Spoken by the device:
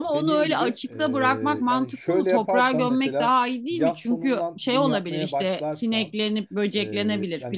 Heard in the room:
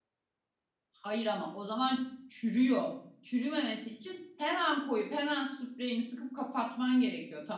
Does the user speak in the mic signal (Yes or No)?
Yes